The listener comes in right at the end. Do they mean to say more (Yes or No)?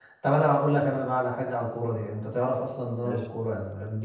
No